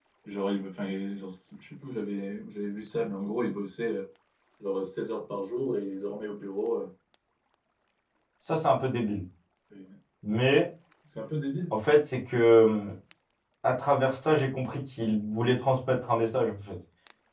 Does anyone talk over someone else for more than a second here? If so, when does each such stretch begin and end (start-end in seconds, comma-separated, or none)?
none